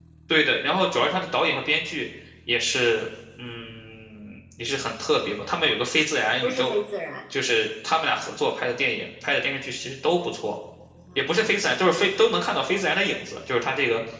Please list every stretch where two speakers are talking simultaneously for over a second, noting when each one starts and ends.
none

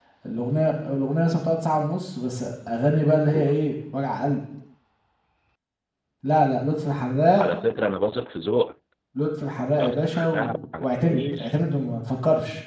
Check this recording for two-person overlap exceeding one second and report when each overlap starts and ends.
9.8-11.5

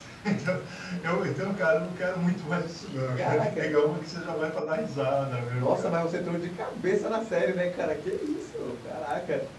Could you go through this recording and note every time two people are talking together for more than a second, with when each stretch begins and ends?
none

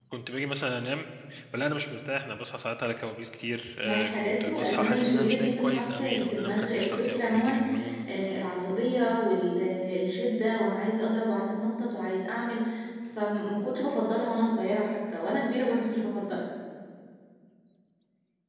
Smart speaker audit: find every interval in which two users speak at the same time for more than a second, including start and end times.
3.8-7.6

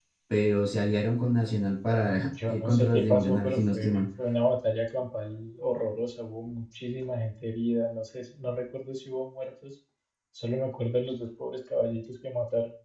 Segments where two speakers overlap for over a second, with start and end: 2.5-4.0

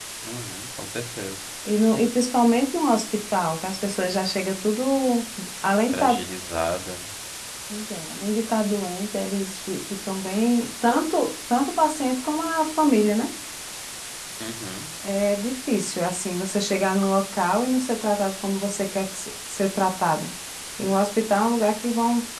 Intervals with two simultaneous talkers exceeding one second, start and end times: none

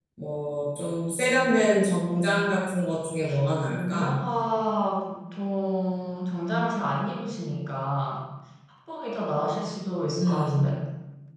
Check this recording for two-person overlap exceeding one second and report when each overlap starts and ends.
none

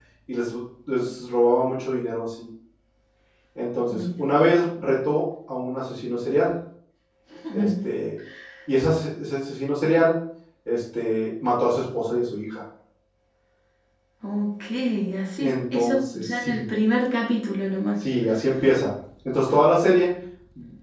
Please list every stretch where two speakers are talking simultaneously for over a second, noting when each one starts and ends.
15.4-16.6

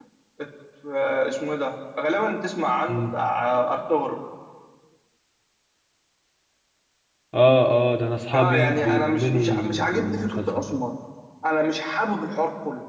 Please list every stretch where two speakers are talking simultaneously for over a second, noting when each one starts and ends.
8.3-10.7

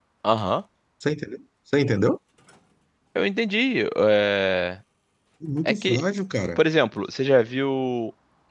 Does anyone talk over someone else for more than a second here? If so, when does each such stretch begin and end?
none

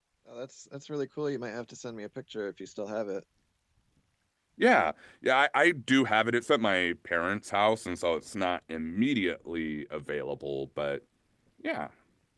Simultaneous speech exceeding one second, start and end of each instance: none

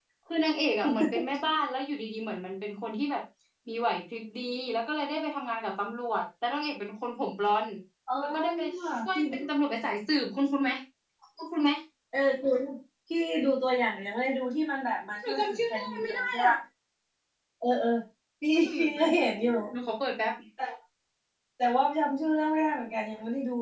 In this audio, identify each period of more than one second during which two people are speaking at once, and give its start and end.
15.3-16.5

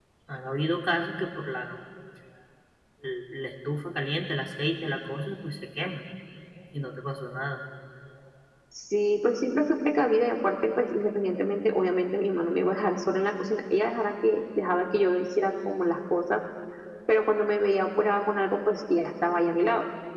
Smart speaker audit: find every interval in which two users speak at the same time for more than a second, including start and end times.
none

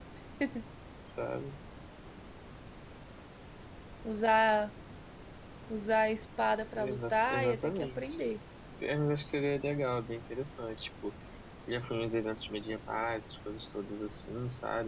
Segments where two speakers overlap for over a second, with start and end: 6.8-8.3

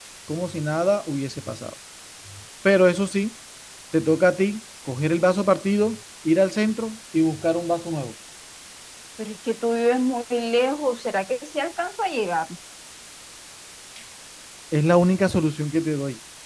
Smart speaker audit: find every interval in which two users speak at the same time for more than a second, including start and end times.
none

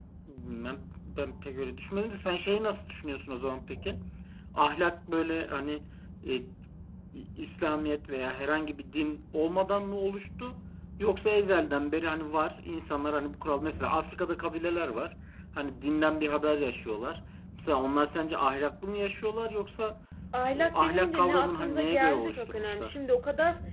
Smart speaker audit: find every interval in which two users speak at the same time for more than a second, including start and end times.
20.5-22.9

